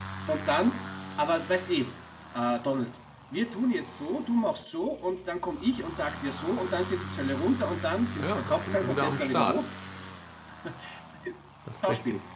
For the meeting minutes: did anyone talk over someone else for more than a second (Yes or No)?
Yes